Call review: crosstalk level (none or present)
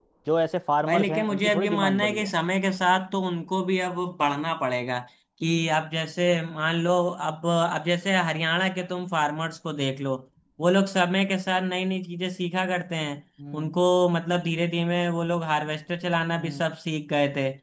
present